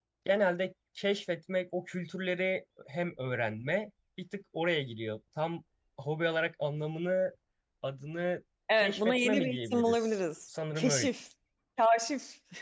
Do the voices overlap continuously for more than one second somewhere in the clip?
Yes, from 8.7 s

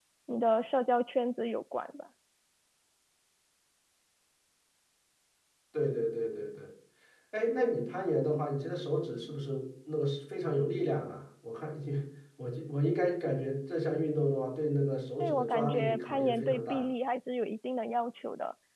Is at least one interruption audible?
Yes, from 15.2 s

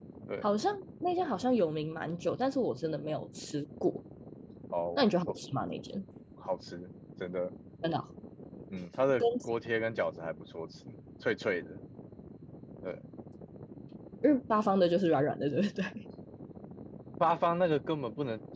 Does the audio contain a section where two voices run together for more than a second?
No

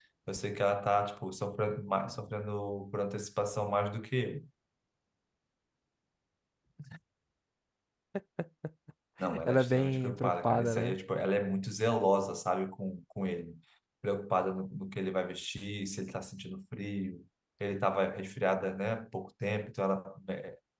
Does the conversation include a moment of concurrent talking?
Yes, from 9.4 s

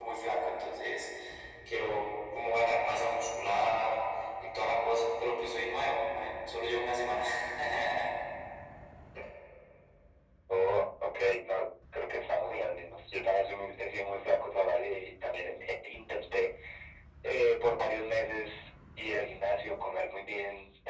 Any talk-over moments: No

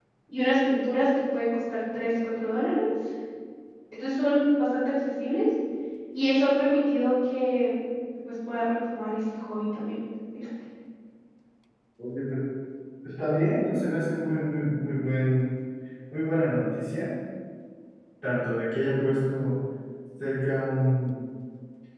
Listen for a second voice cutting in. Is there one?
No

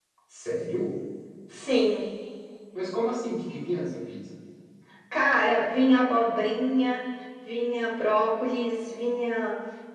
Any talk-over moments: No

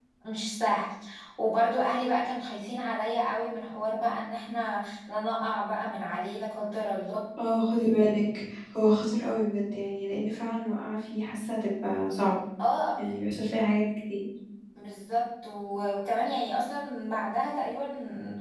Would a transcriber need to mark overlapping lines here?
No

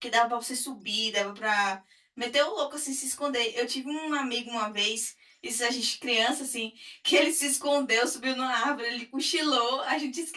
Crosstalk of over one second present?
No

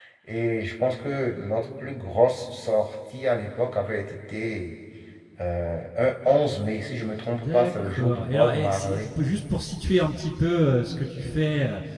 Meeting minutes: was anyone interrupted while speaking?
Yes, from 7.4 s

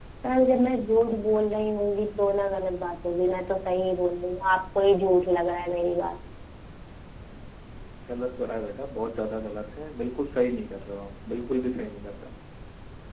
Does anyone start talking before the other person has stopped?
No

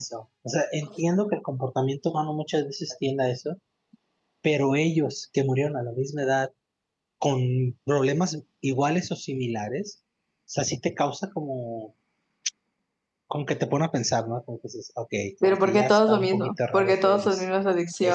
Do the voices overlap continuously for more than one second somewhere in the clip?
Yes, from 15.4 s

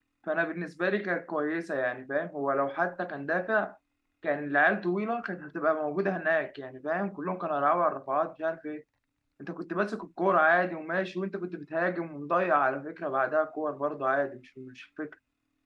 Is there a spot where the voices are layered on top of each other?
No

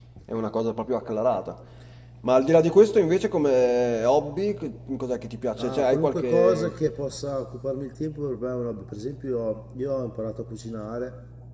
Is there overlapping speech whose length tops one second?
Yes, from 5.6 s

